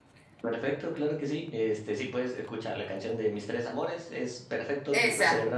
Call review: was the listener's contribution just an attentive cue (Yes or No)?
Yes